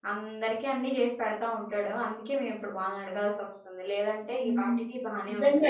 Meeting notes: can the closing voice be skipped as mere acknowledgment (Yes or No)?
No